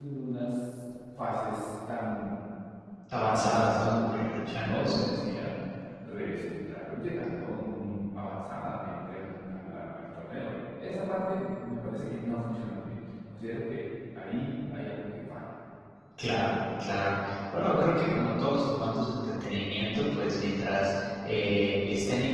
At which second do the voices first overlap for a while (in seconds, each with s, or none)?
3.2 s